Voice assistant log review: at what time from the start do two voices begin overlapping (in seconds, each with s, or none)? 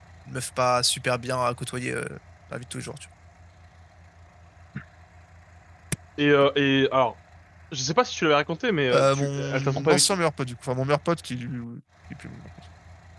8.9 s